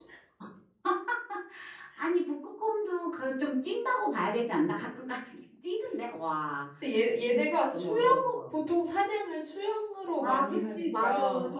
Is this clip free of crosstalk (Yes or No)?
No